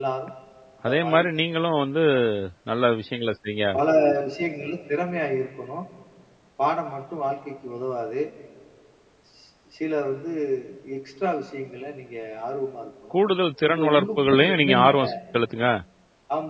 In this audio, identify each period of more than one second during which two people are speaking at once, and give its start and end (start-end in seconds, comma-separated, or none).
13.7-14.9